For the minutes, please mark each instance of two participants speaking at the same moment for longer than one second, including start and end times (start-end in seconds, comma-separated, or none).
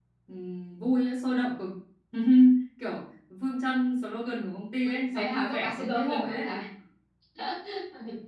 5.1-6.5